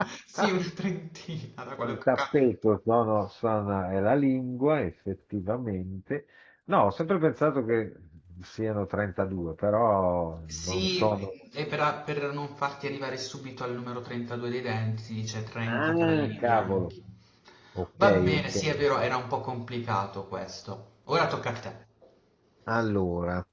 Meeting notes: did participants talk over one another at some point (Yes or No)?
Yes